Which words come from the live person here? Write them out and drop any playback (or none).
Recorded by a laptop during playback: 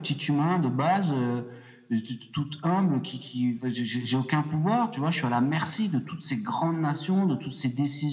none